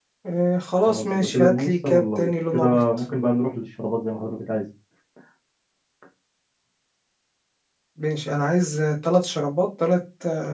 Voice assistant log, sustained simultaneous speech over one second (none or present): present